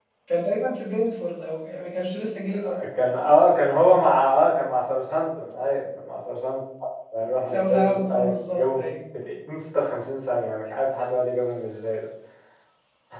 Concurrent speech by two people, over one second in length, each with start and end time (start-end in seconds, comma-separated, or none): 7.5-8.9